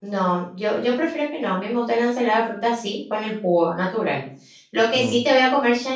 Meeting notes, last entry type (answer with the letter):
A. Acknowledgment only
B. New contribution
A